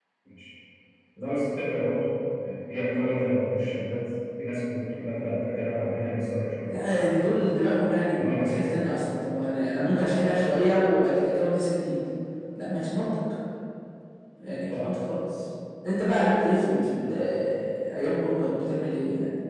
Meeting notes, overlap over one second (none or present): none